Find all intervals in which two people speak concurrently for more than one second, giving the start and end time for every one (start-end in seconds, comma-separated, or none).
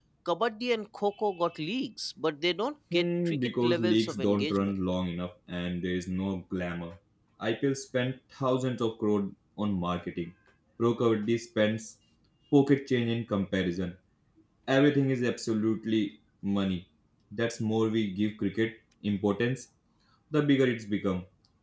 2.9-4.7